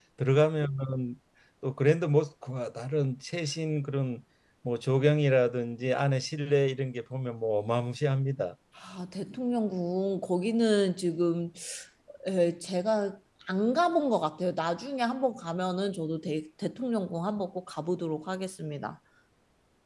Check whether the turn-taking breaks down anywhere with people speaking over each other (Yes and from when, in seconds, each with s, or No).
No